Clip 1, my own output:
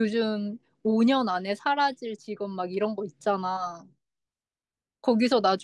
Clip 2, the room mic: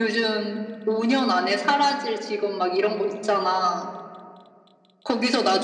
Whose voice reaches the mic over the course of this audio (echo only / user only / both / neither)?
echo only